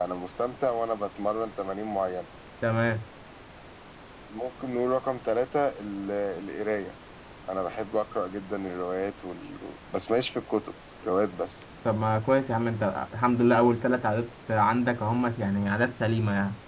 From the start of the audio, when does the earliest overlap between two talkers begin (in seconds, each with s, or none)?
none